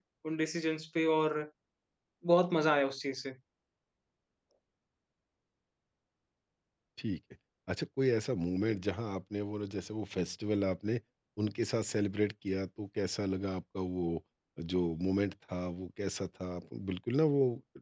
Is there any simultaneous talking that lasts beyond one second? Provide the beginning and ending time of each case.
none

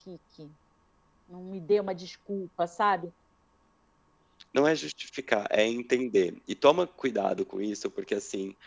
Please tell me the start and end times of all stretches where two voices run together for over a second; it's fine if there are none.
none

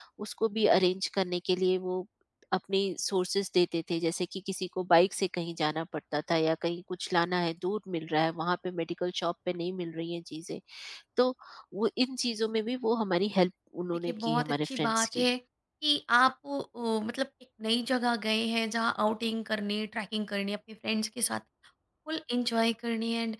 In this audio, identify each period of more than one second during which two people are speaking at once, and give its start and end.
14.1-15.3

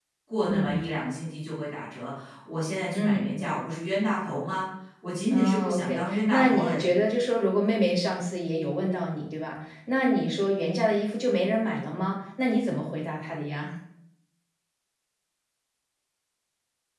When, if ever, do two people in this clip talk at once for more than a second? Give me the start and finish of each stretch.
5.3-7.0

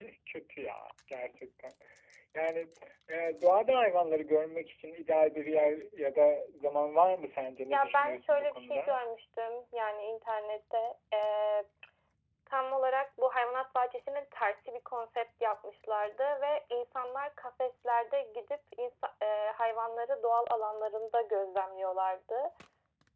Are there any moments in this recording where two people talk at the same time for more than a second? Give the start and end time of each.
7.7-9.0

